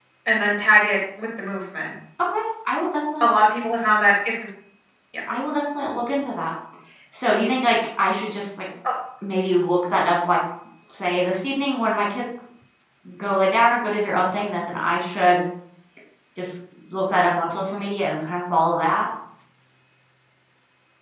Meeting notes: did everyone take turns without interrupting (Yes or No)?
Yes